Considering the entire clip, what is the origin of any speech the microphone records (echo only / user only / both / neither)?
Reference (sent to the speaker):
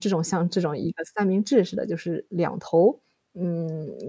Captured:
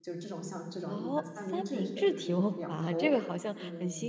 both